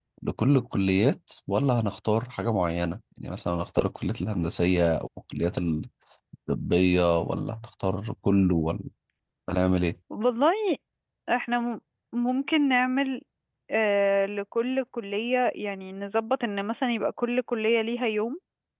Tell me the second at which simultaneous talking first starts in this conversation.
none

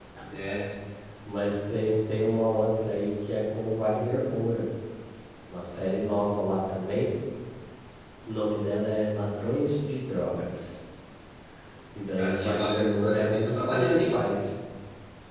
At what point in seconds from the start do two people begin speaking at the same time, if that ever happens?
12.2 s

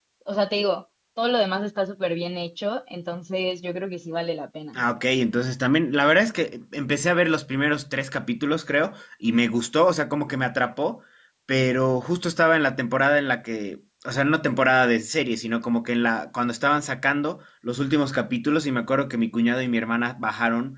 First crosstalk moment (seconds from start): none

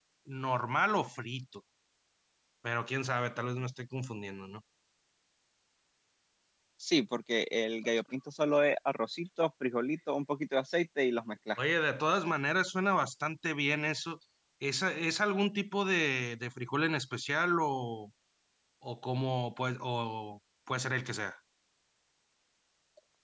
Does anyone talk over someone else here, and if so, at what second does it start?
none

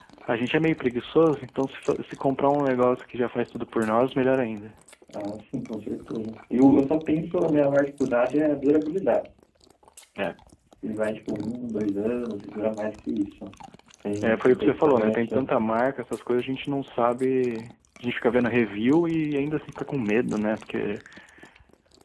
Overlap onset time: 14.2 s

